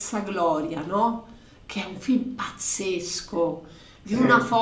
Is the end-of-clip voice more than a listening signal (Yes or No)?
No